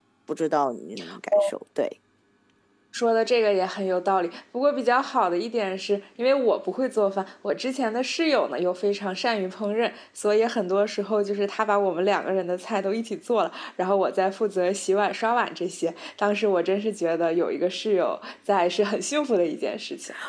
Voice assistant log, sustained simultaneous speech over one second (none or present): none